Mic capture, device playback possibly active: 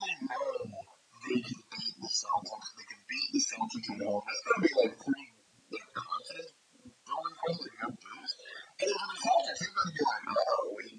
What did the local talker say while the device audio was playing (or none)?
none